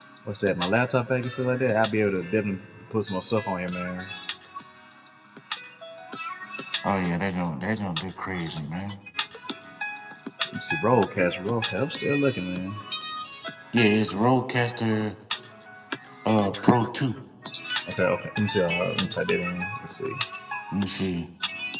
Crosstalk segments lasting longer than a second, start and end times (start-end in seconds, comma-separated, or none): none